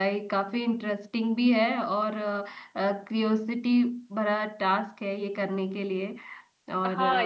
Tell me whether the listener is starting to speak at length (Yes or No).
Yes